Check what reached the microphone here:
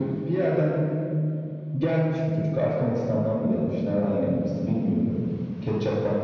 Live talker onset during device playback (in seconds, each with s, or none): none